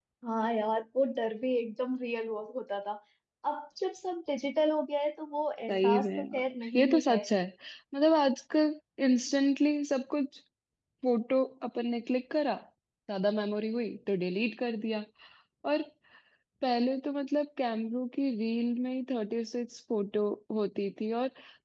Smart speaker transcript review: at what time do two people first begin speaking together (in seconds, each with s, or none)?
5.7 s